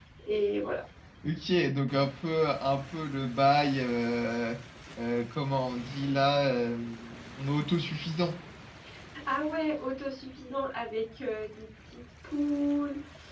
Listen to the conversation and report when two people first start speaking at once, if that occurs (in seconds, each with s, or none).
none